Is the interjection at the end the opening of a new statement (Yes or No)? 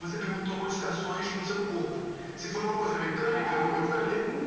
No